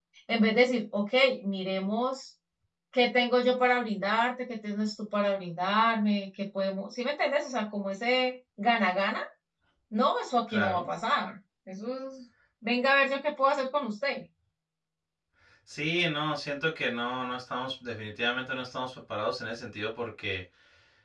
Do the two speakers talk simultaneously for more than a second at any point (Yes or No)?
No